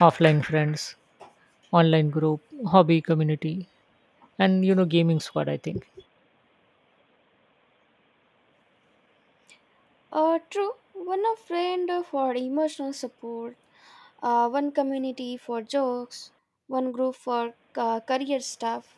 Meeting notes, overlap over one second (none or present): none